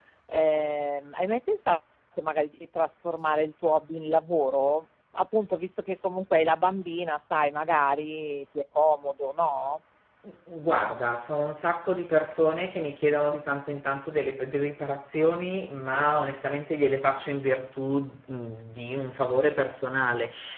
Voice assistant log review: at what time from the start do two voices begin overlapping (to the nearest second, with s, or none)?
none